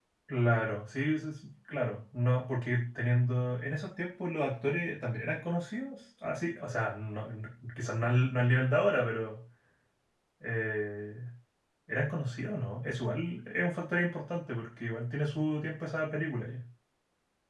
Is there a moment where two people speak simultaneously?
No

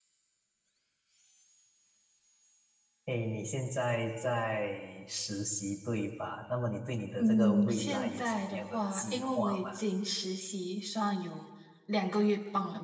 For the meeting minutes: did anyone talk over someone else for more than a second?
Yes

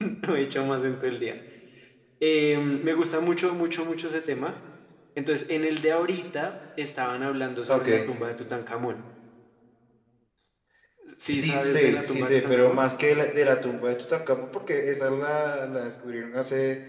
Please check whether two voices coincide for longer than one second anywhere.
Yes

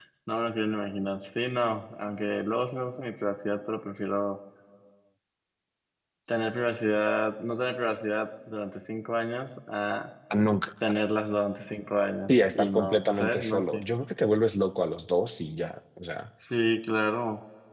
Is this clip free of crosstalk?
No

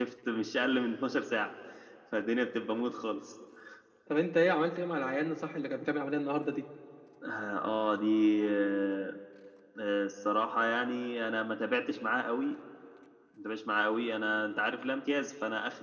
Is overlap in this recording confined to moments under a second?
Yes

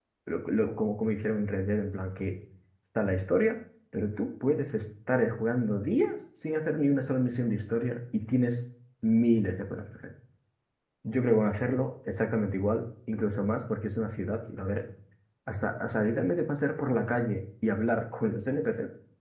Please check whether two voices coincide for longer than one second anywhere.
No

